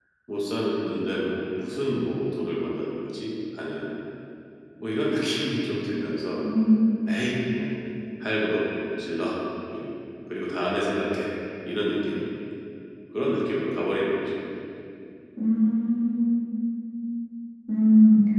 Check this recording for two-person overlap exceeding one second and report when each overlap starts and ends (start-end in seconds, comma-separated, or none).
none